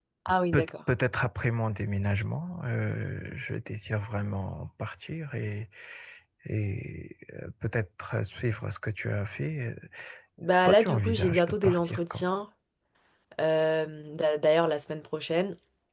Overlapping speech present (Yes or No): Yes